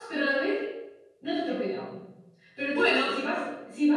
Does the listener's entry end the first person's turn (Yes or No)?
No